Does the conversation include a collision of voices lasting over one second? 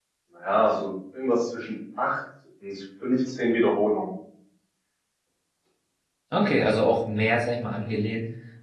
No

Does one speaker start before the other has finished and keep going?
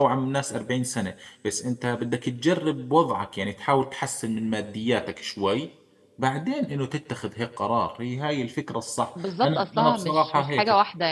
Yes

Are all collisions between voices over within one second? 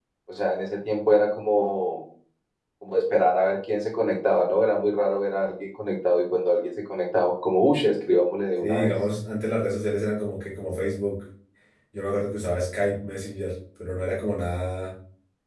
Yes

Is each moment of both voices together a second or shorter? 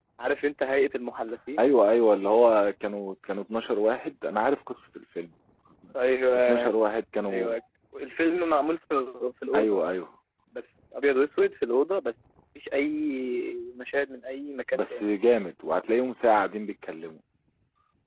Yes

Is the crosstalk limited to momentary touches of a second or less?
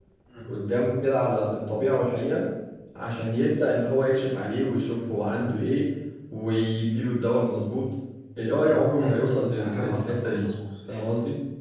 No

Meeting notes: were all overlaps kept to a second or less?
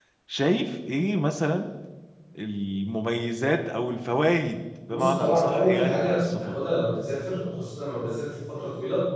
No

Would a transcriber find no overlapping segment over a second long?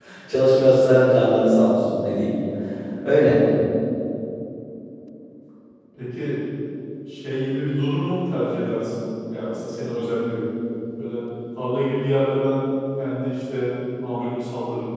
Yes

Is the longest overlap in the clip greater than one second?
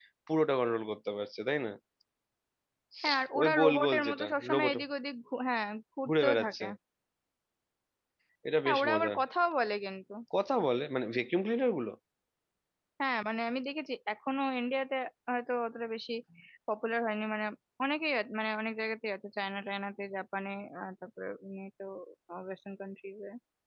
Yes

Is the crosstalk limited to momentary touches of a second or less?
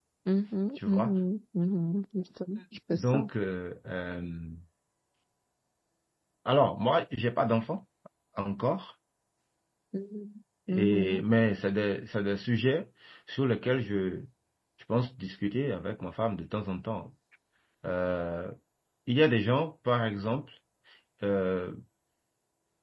Yes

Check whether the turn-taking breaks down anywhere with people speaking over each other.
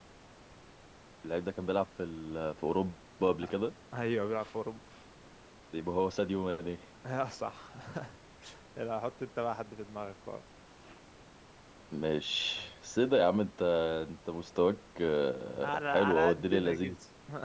Yes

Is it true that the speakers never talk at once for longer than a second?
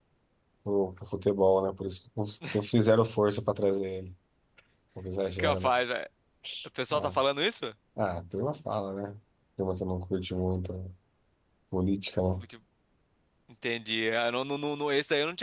Yes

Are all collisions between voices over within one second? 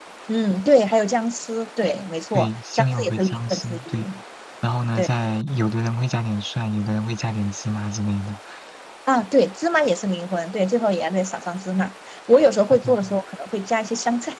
No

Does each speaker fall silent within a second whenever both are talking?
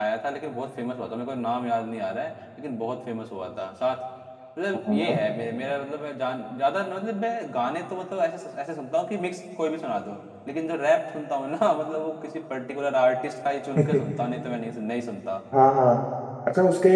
Yes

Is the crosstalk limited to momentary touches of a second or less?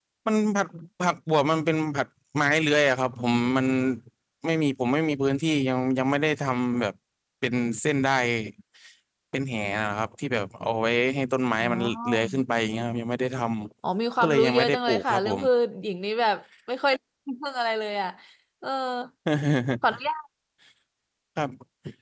No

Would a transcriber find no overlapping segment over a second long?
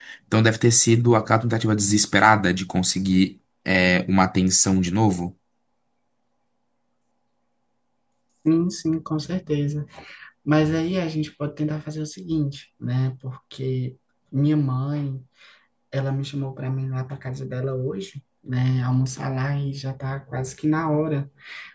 Yes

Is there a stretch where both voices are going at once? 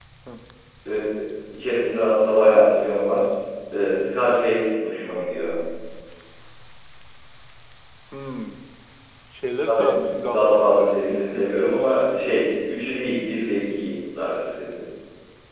Yes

